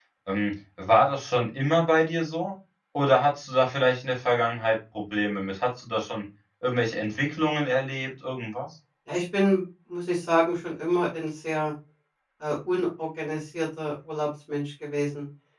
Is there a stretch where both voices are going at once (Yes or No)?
No